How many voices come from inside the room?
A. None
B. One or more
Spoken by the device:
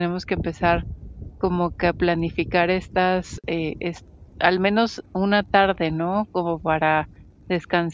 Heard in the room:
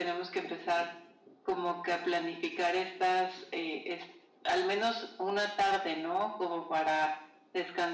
A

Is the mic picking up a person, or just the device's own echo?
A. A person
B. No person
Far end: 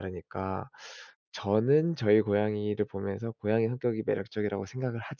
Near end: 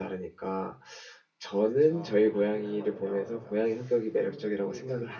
A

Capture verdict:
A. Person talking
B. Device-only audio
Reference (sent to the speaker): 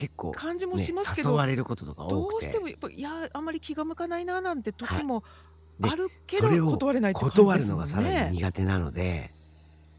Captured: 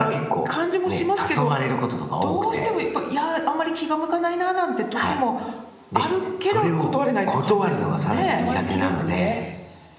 A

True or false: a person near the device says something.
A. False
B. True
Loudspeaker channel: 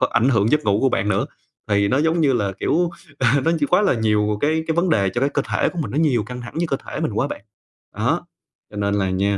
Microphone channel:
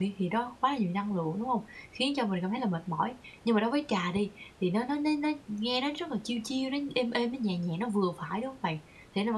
B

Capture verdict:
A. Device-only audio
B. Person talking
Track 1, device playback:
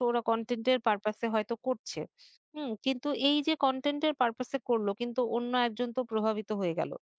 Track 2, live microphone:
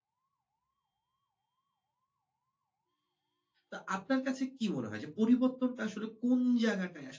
B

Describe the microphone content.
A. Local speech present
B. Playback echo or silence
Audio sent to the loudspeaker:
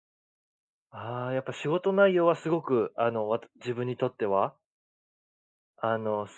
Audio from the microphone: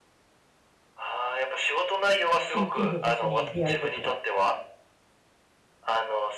A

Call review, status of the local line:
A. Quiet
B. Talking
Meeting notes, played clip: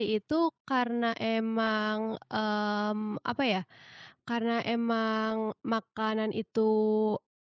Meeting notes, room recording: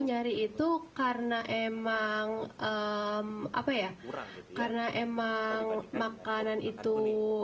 B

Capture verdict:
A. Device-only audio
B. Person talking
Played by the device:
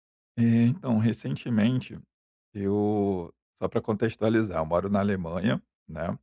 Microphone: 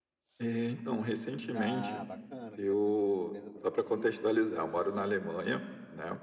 B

